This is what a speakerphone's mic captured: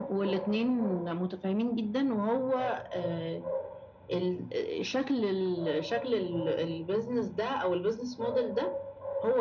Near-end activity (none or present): none